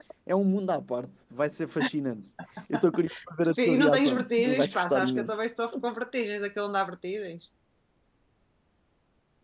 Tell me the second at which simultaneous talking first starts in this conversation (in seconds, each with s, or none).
3.6 s